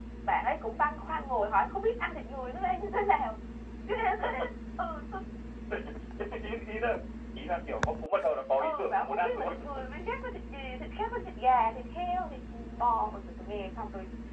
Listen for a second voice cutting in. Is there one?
Yes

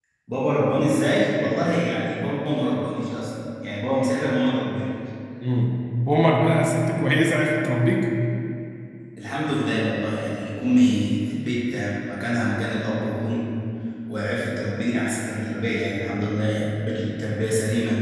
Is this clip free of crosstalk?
Yes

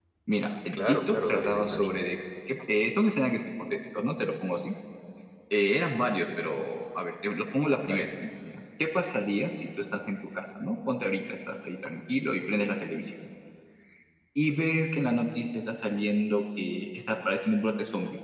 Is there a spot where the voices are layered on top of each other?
Yes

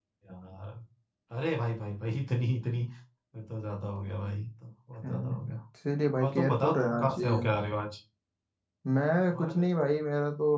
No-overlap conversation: No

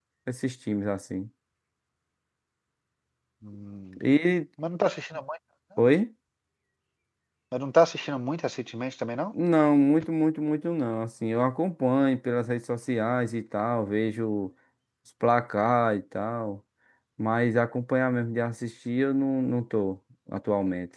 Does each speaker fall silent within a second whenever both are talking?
Yes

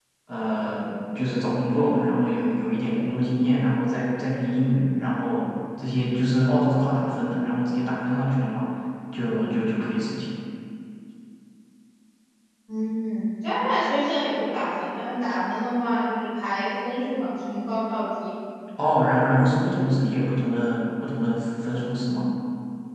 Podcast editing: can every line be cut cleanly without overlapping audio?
Yes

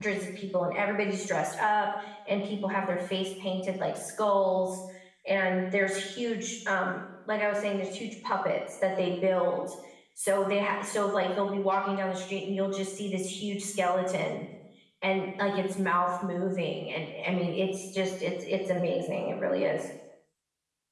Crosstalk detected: No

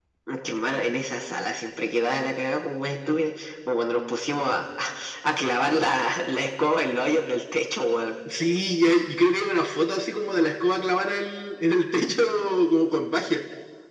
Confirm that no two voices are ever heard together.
Yes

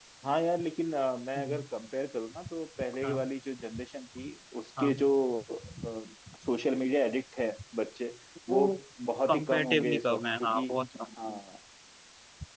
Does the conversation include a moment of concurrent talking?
Yes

